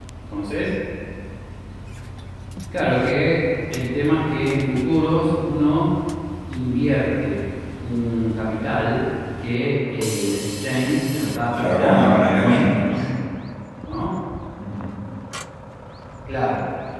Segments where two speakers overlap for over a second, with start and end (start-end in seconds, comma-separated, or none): 11.5-13.0